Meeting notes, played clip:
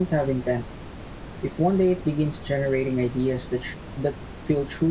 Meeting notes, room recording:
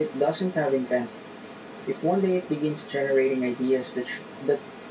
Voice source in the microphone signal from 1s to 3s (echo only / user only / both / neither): echo only